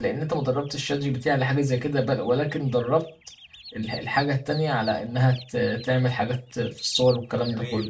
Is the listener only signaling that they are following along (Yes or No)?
No